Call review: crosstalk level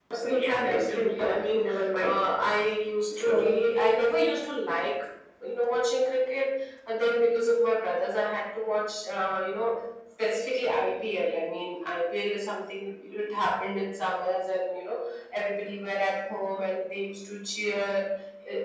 present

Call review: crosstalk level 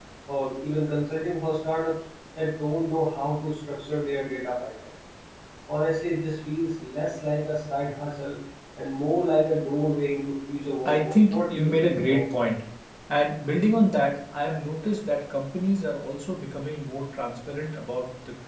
present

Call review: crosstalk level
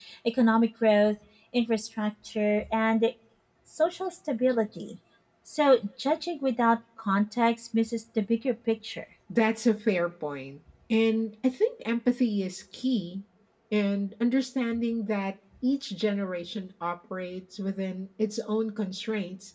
none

